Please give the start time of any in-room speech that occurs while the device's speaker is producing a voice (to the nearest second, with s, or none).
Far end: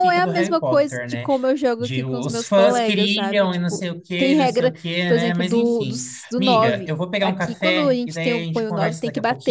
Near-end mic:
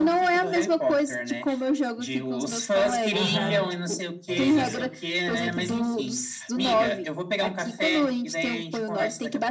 3 s